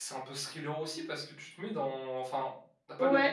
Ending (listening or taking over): taking over